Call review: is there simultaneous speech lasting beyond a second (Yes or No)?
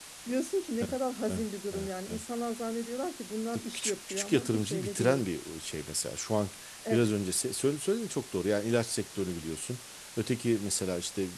Yes